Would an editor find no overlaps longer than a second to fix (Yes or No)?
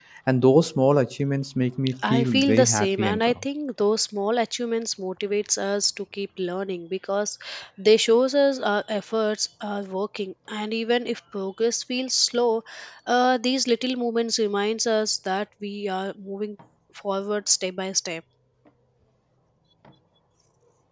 No